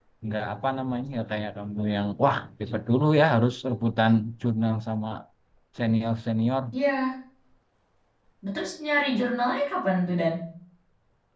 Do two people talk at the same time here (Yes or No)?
No